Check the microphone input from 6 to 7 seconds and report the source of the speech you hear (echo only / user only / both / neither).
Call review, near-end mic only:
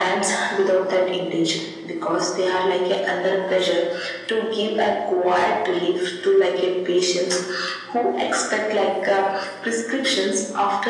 echo only